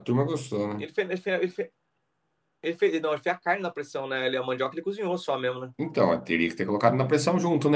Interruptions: none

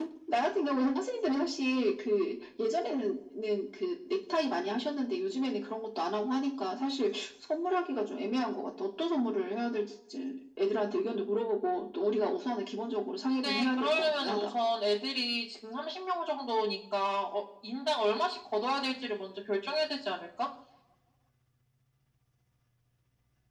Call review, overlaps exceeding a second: present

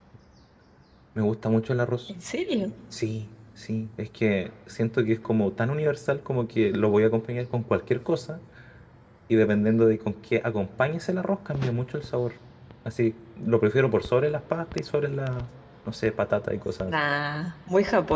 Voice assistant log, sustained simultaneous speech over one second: none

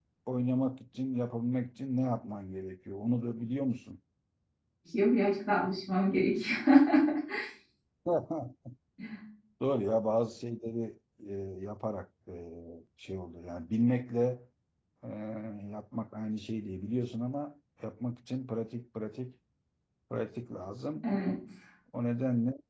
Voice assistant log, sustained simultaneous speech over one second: none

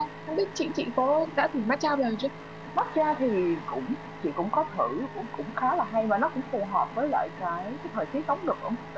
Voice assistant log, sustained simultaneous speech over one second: none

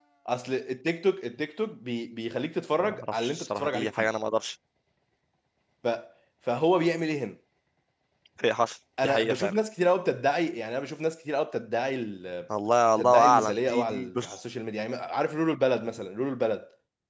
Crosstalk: present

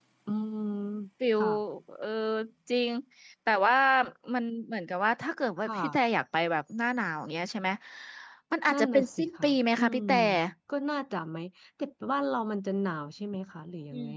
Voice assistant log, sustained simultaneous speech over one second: present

